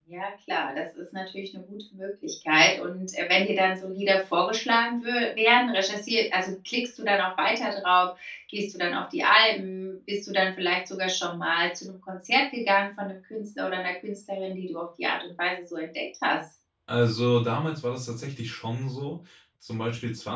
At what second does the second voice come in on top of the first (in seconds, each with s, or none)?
none